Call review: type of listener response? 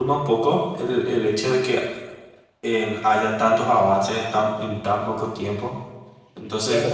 taking over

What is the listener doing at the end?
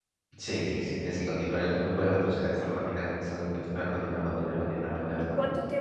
taking over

